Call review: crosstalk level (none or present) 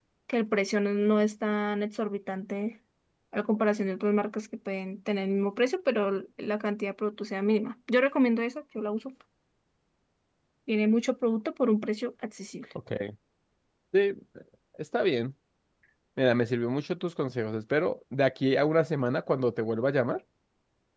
none